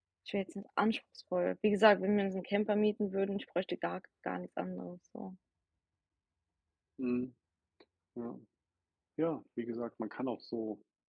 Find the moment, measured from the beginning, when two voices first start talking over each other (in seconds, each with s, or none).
none